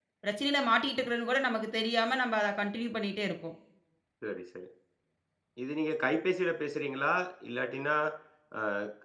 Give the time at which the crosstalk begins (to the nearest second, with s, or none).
none